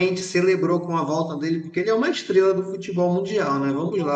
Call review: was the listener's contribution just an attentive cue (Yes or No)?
Yes